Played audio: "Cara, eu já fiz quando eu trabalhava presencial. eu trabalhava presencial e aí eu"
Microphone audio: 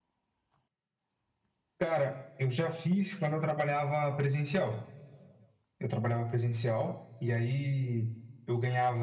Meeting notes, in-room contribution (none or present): none